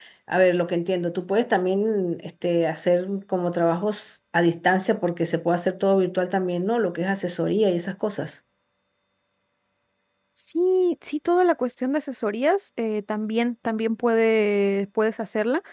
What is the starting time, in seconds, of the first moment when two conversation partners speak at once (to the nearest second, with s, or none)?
none